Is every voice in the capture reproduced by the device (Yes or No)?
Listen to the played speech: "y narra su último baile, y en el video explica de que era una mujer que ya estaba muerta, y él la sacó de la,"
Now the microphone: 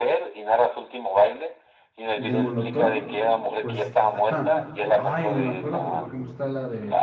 No